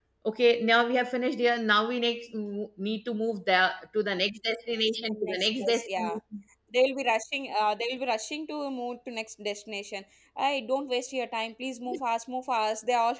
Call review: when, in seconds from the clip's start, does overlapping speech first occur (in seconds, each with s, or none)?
5.0 s